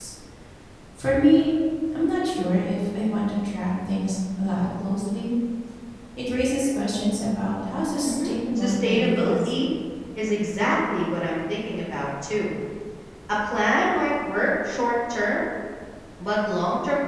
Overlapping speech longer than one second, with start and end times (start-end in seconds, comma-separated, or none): 8.0-9.5